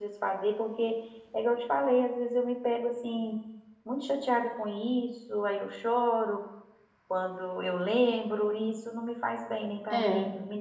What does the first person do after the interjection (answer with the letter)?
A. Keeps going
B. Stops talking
A